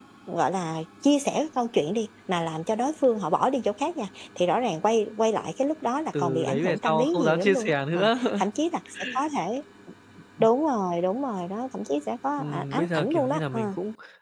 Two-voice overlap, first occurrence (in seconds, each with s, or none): 6.2 s